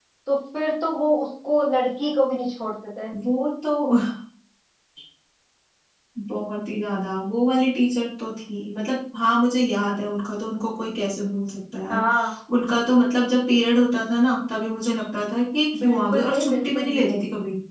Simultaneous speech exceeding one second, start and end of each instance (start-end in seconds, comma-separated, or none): 15.8-17.2